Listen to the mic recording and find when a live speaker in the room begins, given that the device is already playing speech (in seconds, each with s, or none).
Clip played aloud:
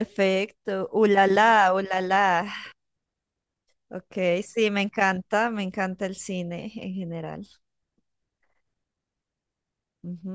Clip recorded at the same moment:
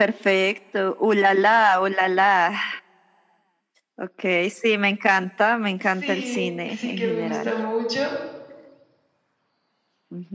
5.8 s